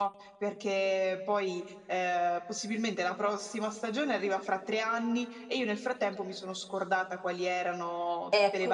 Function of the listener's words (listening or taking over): taking over